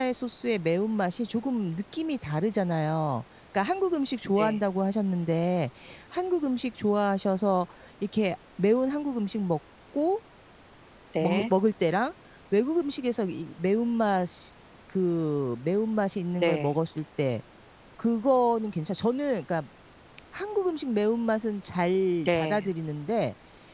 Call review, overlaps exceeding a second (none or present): none